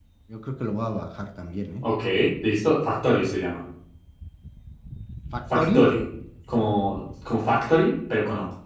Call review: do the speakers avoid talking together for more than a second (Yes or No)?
Yes